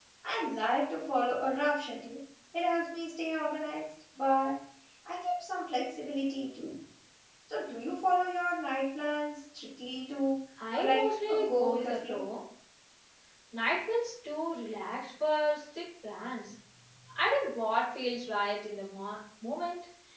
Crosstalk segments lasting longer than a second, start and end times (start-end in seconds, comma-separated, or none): 10.7-12.2